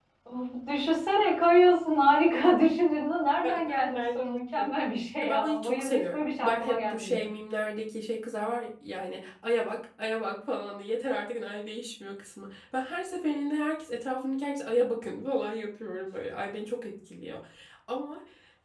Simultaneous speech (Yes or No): Yes